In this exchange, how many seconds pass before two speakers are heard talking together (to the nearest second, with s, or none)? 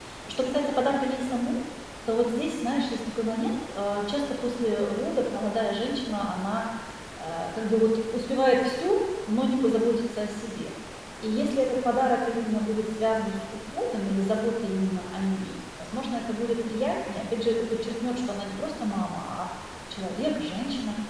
none